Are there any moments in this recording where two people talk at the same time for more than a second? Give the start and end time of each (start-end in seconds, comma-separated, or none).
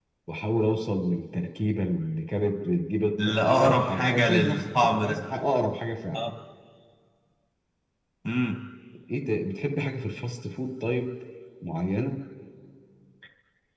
3.2-5.2